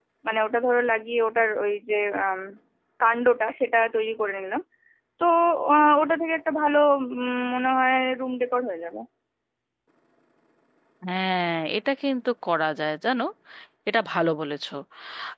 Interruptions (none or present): none